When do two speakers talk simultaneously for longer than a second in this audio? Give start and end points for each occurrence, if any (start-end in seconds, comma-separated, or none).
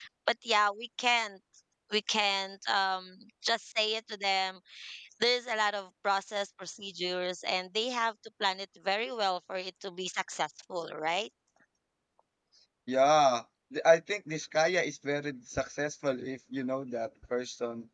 none